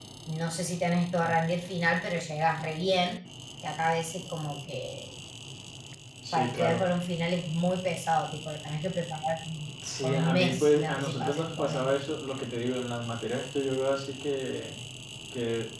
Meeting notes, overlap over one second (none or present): present